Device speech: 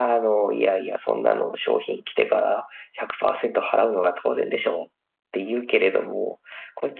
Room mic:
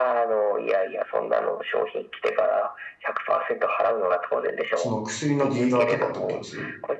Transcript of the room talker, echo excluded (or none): その薬のディーラーとかってことです違い